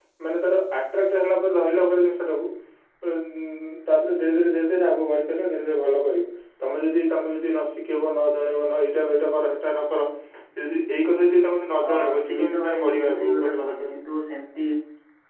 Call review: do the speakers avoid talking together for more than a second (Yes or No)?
No